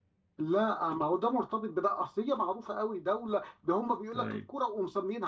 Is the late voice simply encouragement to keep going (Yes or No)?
Yes